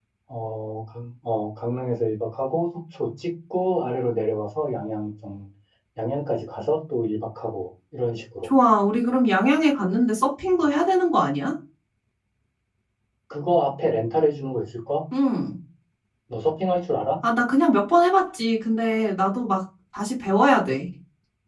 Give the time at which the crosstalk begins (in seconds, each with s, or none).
none